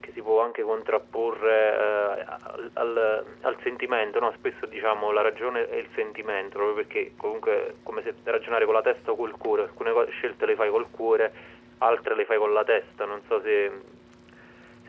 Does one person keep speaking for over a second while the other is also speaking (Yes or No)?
No